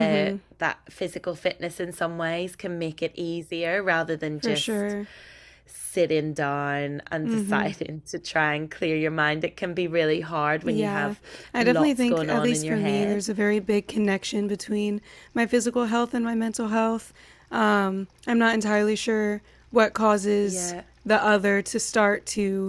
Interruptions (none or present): present